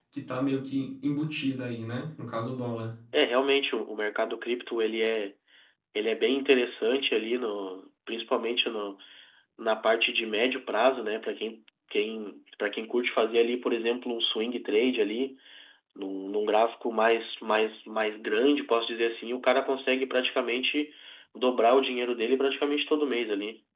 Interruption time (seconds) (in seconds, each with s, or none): none